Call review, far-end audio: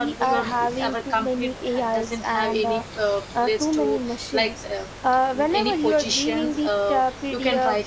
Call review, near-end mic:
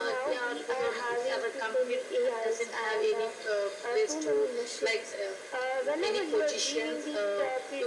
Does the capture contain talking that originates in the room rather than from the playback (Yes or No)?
No